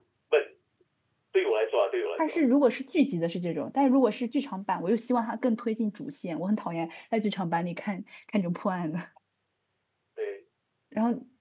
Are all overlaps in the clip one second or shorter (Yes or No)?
Yes